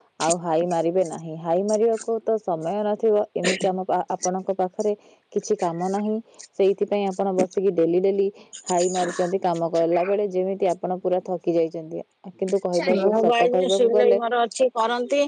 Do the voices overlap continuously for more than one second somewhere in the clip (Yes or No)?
Yes